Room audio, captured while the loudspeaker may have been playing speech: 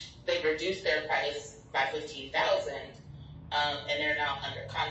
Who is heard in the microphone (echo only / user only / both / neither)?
echo only